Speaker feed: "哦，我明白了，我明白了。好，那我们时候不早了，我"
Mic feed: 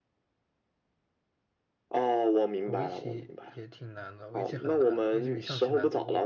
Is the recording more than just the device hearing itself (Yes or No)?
Yes